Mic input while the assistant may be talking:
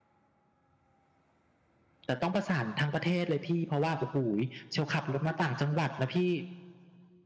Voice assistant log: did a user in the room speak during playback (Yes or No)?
Yes